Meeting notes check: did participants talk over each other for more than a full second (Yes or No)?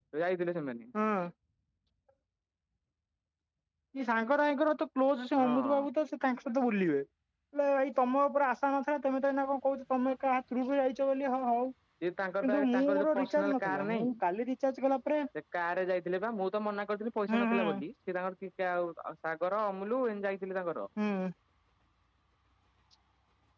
Yes